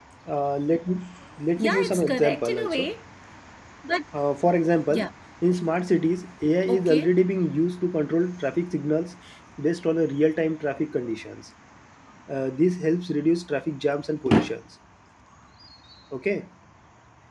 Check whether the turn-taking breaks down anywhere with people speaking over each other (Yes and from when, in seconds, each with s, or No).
Yes, from 1.6 s